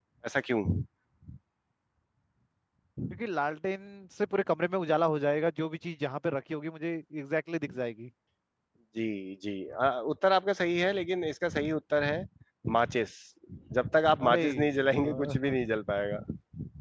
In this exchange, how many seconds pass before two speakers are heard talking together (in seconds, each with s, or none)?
14.2 s